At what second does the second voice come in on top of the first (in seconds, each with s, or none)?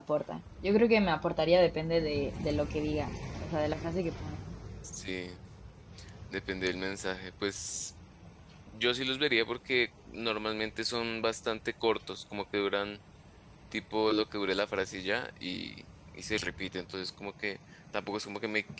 none